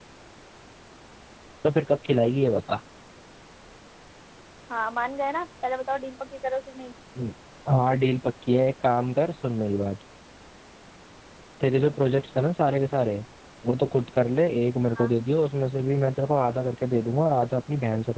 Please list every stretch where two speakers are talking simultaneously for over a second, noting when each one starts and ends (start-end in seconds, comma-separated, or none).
none